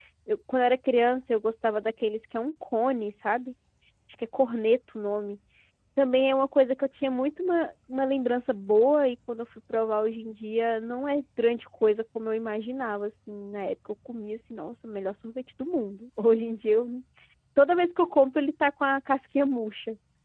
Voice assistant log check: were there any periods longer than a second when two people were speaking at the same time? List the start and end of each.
none

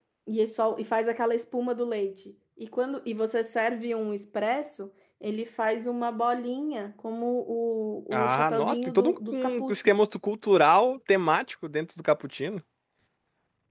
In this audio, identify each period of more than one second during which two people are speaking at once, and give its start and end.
8.1-9.9

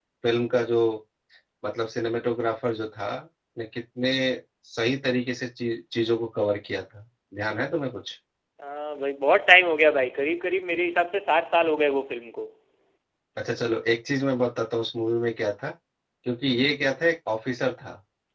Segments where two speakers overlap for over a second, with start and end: none

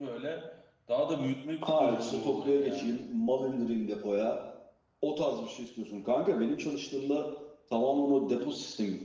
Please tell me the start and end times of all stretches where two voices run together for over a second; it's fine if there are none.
1.8-3.0

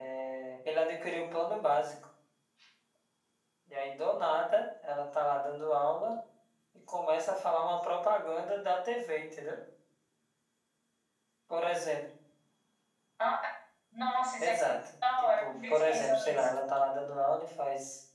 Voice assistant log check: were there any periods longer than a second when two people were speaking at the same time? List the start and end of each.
15.2-16.4

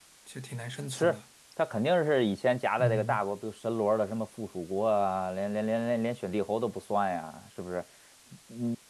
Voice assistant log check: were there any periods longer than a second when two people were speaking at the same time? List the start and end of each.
none

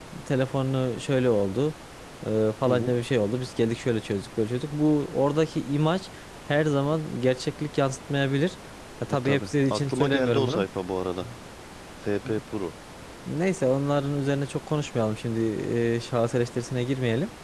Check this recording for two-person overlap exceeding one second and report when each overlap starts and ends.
9.1-10.7

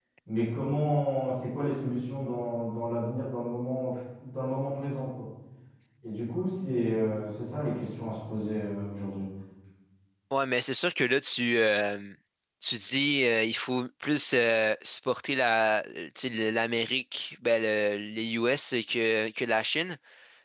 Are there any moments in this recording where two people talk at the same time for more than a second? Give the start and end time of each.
none

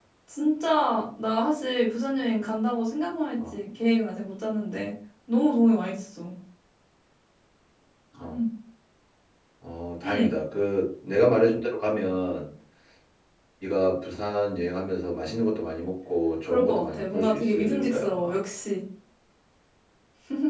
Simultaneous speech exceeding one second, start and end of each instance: 16.4-18.3

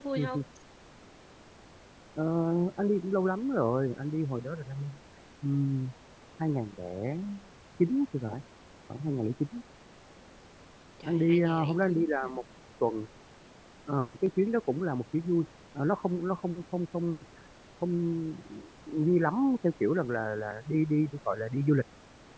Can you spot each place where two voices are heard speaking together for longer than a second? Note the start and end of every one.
11.0-12.3

